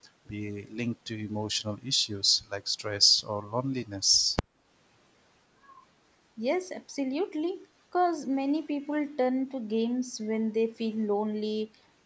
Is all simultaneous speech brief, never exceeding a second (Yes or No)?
Yes